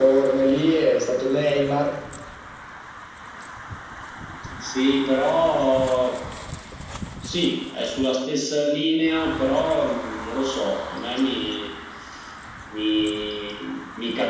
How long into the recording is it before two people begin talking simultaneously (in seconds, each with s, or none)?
none